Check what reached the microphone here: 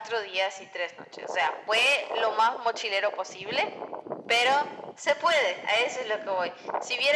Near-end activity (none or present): none